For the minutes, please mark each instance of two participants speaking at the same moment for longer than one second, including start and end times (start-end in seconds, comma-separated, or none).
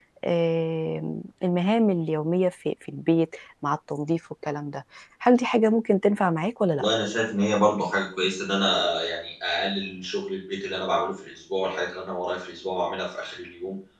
none